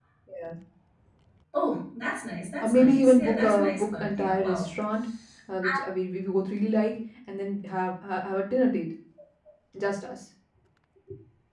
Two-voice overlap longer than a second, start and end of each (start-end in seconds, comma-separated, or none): 2.6-4.7